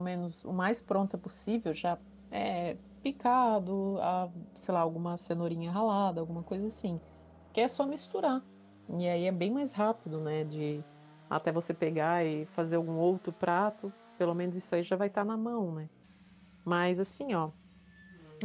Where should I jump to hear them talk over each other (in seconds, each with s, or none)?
none